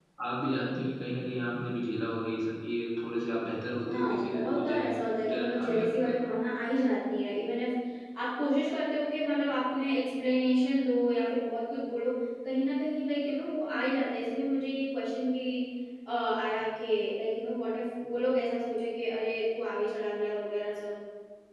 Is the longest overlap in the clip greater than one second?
Yes, from 3.9 s

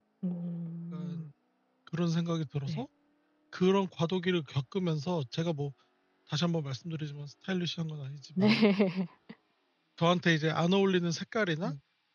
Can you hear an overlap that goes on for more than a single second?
No

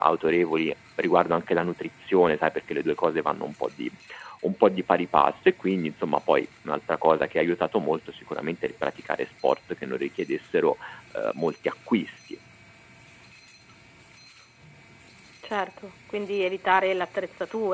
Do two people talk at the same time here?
No

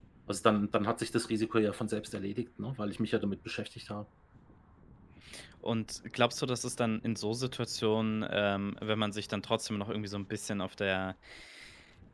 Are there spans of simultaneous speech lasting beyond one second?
No

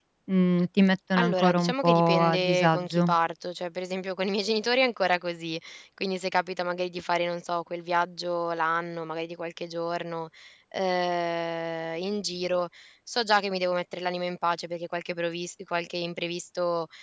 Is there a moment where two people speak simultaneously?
Yes, from 1.2 s

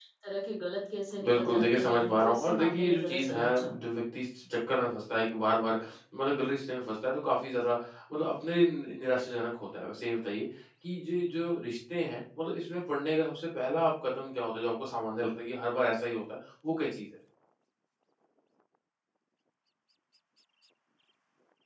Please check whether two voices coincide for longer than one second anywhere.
Yes, from 1.2 s

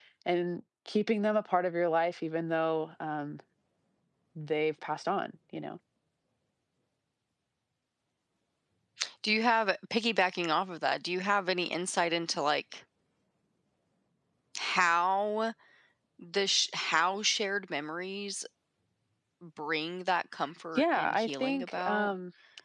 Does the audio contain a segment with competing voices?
Yes, from 20.8 s

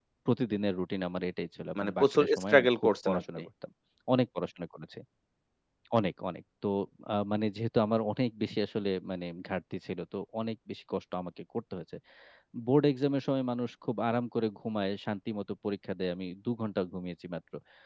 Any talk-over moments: Yes, from 1.8 s

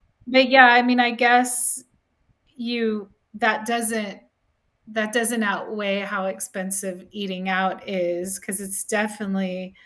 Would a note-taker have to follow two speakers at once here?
No

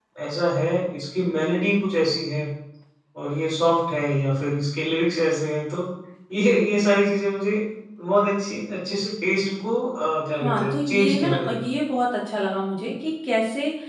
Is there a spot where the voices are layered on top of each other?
Yes, from 10.3 s

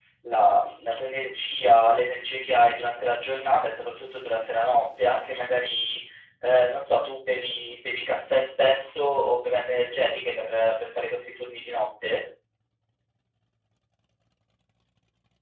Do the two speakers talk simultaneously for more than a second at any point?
No

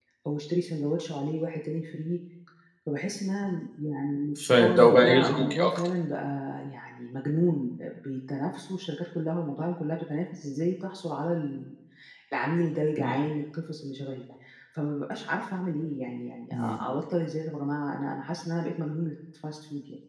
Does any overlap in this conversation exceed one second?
Yes, from 4.4 s

